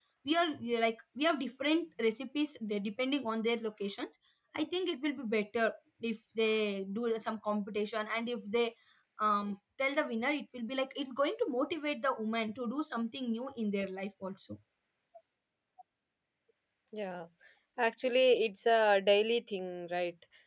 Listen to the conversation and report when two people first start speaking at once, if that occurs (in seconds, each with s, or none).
none